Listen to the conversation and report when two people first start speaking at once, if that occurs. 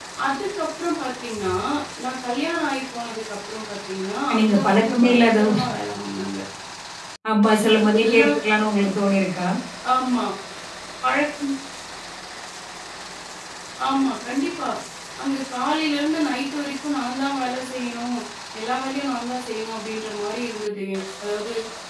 4.4 s

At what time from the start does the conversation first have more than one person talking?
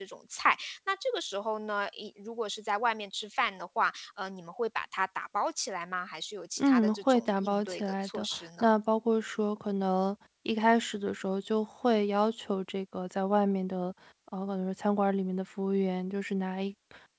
6.6 s

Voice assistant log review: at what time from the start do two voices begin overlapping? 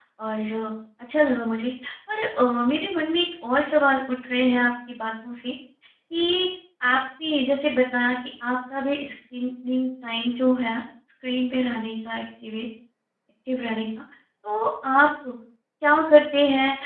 none

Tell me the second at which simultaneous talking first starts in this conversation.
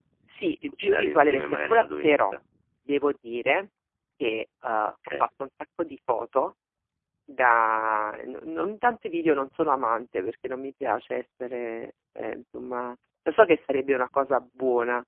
0.8 s

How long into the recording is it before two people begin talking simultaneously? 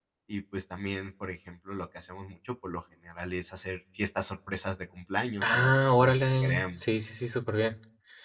5.4 s

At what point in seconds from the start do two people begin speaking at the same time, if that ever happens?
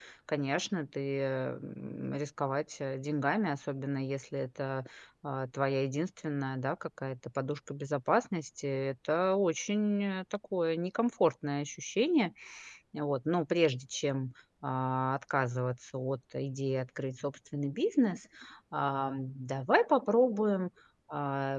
none

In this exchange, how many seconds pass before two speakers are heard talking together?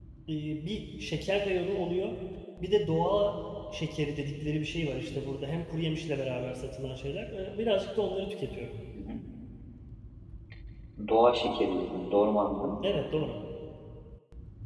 none

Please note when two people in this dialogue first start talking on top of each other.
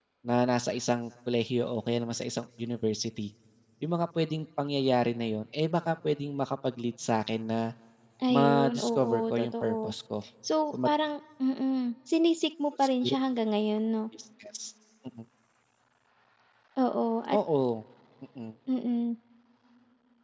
8.3 s

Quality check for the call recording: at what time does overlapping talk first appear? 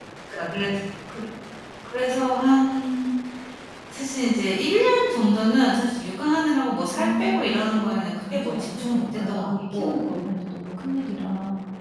6.9 s

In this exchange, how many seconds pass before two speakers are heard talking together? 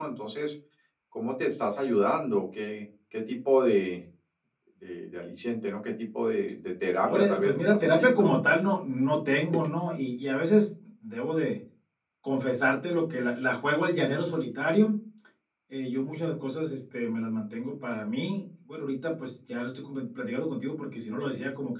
7.0 s

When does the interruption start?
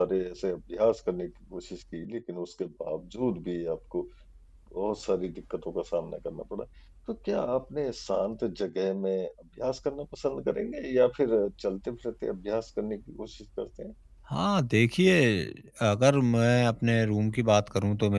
none

